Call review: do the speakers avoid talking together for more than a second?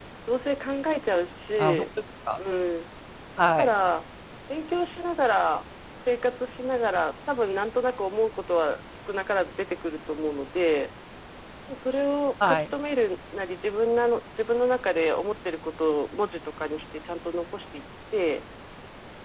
Yes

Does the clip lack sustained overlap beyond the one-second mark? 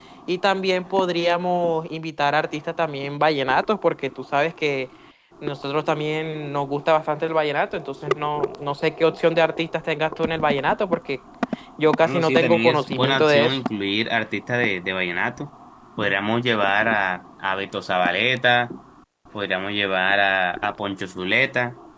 No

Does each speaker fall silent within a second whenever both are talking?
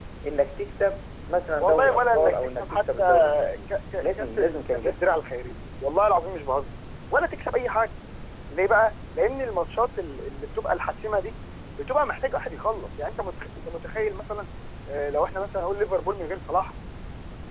No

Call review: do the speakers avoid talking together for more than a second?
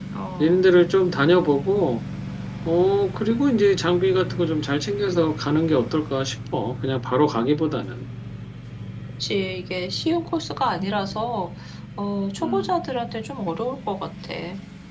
Yes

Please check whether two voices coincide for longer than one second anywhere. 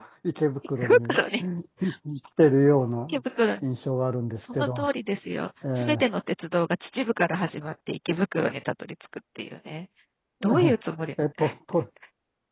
No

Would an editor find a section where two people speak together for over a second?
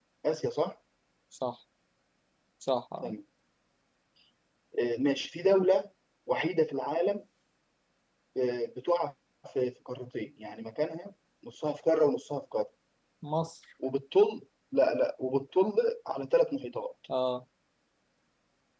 No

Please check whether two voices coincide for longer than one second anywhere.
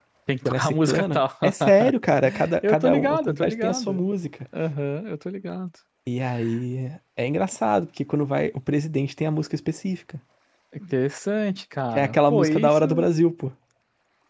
Yes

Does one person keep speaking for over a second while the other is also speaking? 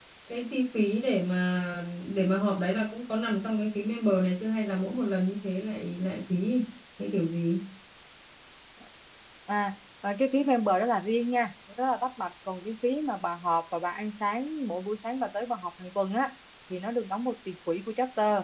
No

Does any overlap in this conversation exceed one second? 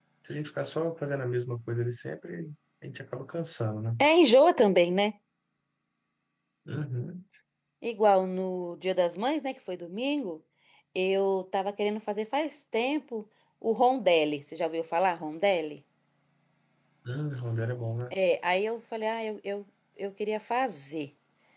No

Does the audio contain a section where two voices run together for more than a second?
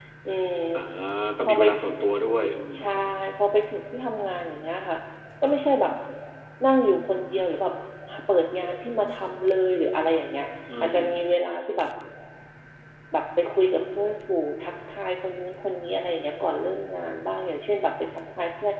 No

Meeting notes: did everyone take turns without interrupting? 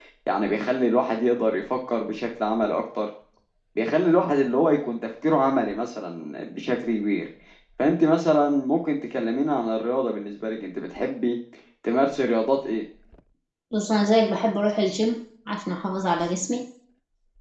Yes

